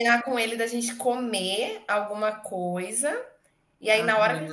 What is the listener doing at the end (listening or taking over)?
listening